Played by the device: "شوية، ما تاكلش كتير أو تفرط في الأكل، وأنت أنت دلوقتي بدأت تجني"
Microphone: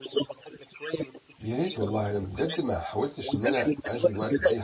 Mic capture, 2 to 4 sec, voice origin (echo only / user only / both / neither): both